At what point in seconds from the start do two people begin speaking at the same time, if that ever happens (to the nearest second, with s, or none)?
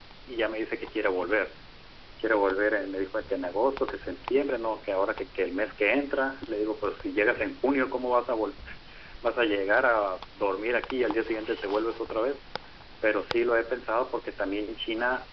none